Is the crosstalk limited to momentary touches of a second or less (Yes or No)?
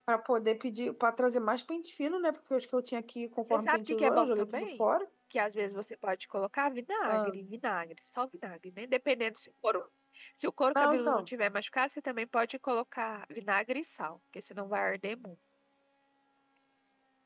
No